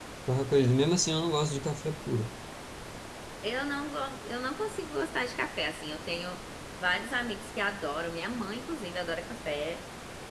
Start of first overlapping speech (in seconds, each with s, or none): none